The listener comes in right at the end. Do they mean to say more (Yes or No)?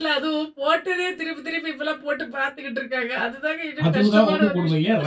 Yes